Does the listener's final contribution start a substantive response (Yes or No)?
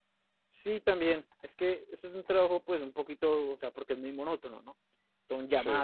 No